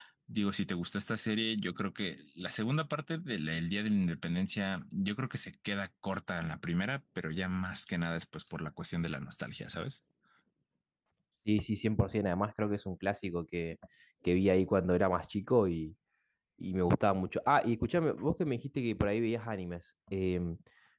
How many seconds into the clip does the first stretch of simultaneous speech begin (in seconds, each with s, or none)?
none